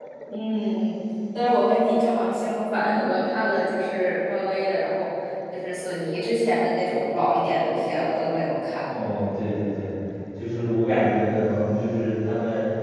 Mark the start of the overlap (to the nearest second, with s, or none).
none